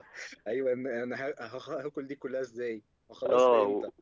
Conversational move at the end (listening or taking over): taking over